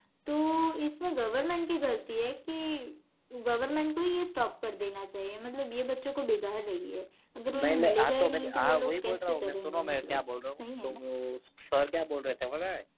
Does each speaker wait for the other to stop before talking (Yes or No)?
No